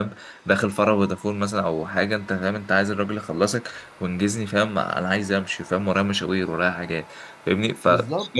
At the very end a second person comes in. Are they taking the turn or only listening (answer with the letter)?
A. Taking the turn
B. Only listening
B